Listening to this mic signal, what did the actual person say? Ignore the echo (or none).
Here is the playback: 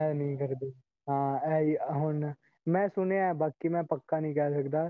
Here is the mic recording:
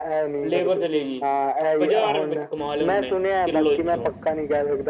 ਲੇਬਰ ਚਲੇਗੀ। ਪੰਜਾਹ ਰੁਪਏ ਵਿੱਚ ਕਮਾ ਲਿਆ ਨੇ। ਕਿੱਲੋ ਚੋਂ।